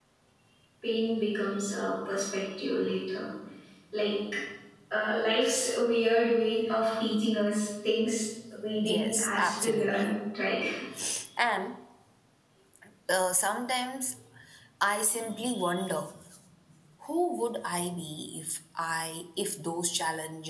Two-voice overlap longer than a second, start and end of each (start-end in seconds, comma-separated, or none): 8.8-10.1